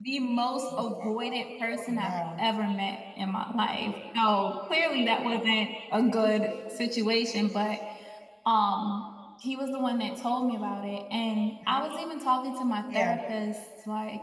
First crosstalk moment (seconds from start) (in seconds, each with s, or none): 0.8 s